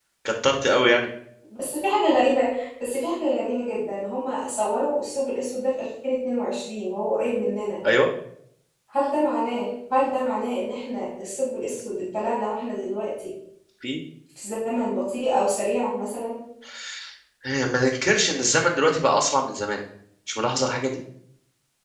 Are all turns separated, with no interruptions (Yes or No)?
Yes